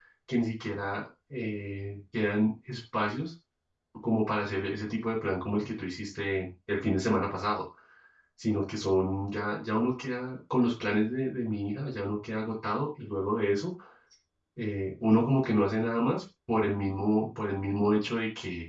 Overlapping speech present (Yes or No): No